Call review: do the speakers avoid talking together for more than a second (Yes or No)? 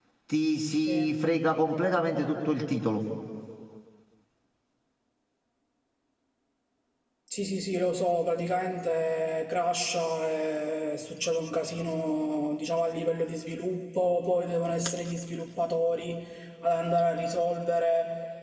Yes